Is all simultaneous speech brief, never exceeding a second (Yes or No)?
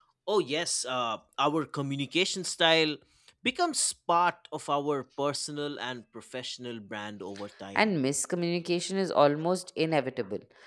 Yes